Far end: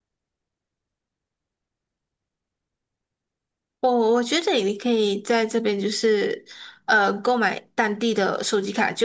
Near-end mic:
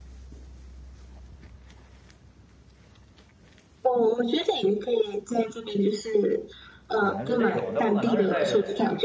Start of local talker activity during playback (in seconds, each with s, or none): 7.0 s